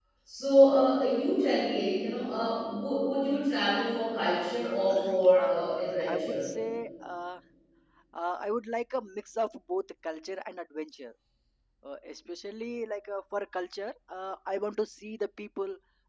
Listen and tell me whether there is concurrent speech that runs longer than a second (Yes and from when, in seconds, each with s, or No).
Yes, from 4.9 s